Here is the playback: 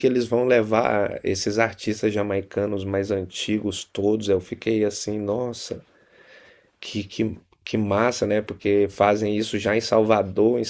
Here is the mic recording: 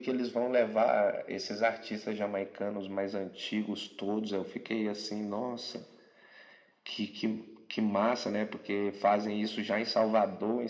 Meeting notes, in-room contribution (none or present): none